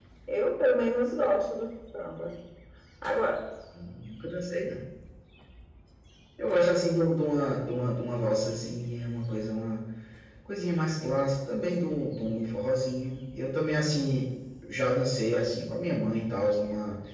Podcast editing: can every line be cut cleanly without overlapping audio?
Yes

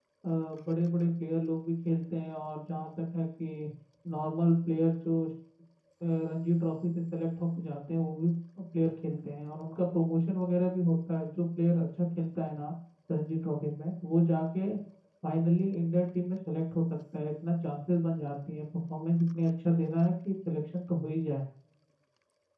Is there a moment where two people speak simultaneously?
No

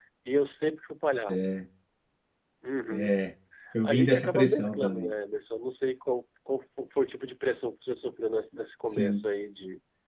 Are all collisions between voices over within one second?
No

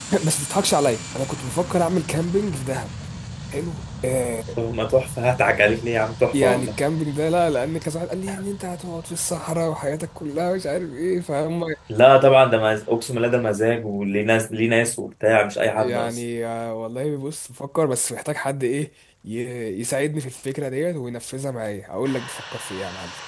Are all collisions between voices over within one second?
Yes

